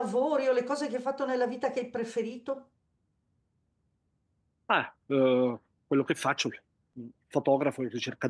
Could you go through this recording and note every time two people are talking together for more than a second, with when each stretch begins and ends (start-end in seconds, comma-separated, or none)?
none